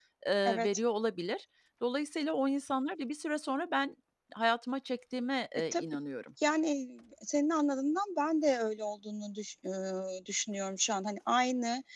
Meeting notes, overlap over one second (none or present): none